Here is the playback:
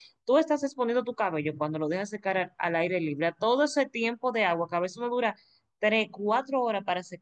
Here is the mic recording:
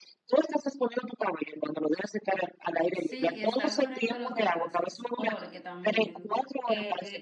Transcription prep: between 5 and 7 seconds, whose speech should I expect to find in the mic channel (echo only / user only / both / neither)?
both